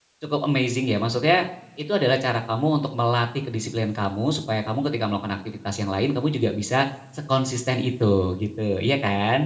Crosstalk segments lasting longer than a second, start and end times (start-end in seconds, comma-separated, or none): none